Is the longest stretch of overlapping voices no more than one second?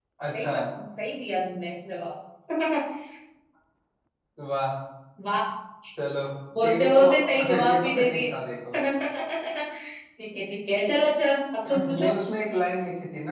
No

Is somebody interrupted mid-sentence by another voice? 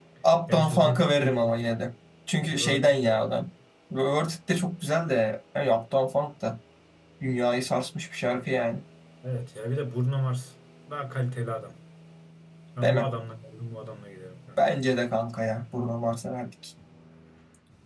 Yes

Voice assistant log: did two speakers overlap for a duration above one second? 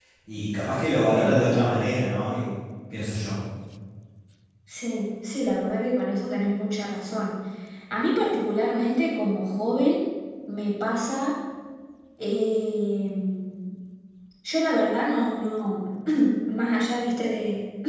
No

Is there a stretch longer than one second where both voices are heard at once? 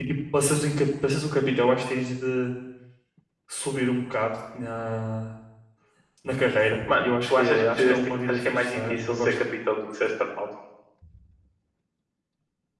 Yes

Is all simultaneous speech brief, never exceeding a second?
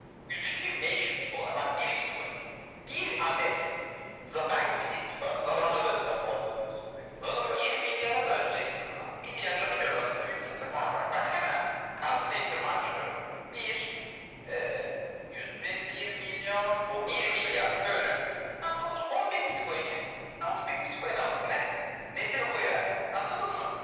No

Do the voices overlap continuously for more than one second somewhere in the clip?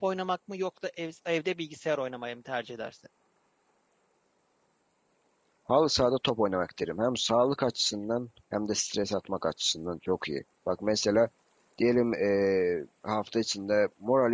No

